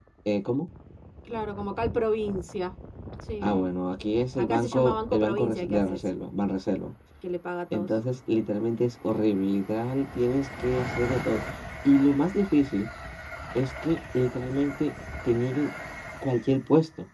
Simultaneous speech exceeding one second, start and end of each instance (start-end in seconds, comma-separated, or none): 4.4-6.1